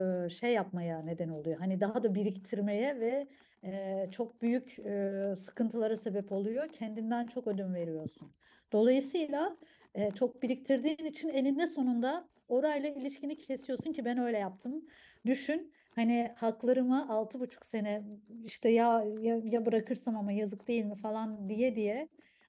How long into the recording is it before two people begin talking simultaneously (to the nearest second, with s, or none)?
none